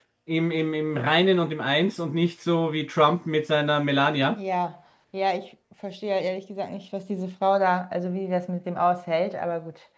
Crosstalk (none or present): none